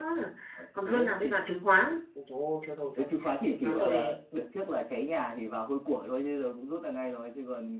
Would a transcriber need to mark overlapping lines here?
Yes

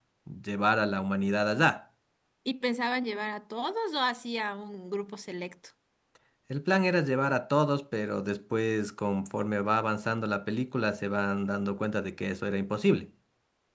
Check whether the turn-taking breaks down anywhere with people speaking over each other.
No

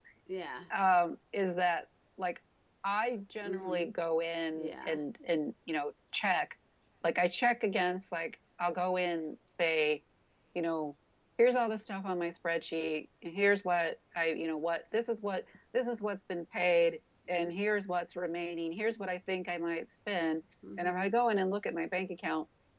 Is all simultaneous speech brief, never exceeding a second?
Yes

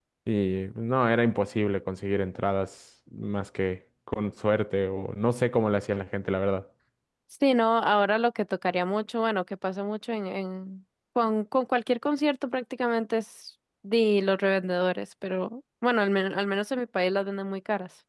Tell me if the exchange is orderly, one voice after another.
Yes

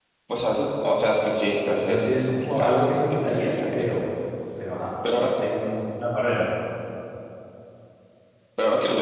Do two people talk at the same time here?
Yes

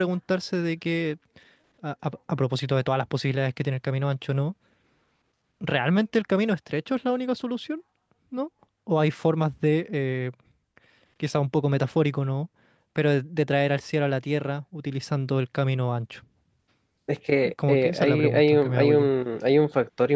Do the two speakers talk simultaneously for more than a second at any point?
Yes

